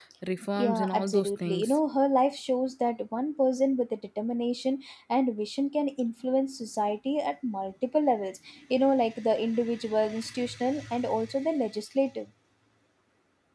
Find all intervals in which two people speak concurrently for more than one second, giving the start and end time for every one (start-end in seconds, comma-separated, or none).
0.6-1.8